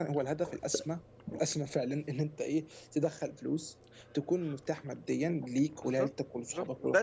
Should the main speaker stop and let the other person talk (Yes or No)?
Yes